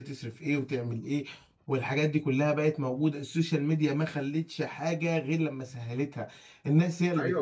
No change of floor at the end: No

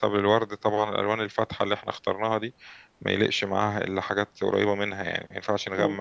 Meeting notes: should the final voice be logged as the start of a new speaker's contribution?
No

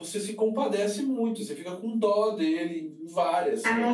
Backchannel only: No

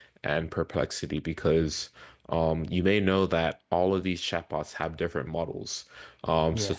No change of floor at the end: Yes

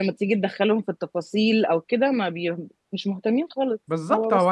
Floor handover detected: Yes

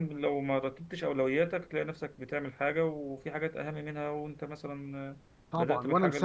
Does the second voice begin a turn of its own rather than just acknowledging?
Yes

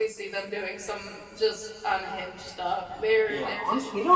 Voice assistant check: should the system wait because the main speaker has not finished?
No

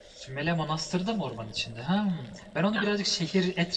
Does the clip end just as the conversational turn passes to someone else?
No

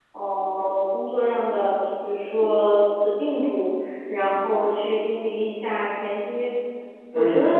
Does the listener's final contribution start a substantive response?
No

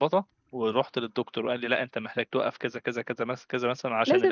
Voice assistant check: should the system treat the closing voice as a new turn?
Yes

